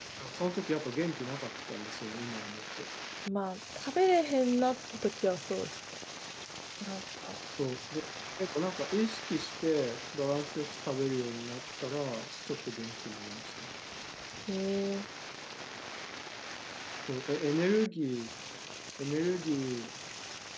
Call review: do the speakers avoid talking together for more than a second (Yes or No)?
Yes